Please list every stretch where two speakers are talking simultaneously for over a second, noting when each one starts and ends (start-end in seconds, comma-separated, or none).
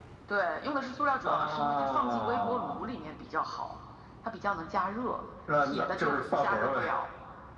1.2-2.9, 5.6-6.9